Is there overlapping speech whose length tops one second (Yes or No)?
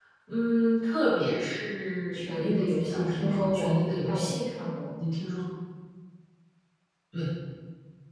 Yes